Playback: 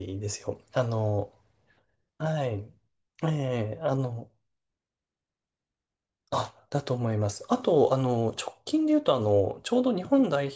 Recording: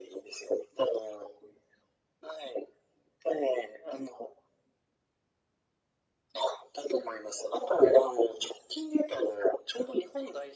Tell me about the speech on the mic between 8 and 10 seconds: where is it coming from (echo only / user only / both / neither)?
echo only